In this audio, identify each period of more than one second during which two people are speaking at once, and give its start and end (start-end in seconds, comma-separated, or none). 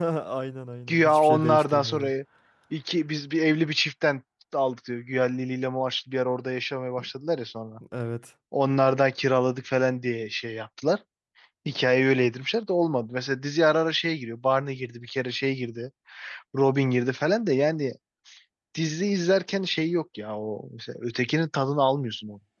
0.9-2.1